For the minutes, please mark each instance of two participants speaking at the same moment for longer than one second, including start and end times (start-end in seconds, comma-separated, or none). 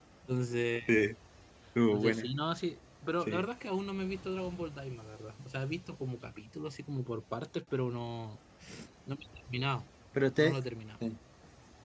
none